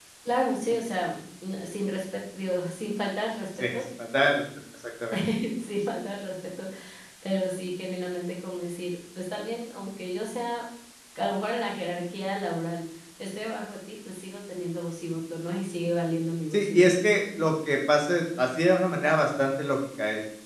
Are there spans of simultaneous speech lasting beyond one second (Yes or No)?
No